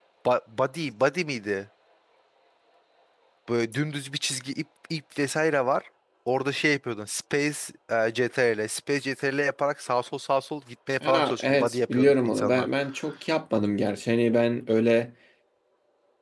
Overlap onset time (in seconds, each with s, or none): 11.0 s